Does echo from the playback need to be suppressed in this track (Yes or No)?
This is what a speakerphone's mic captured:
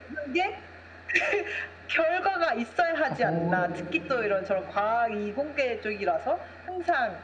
Yes